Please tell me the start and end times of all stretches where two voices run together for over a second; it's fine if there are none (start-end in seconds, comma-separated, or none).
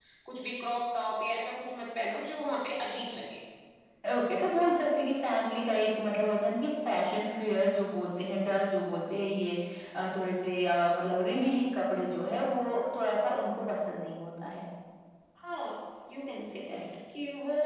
none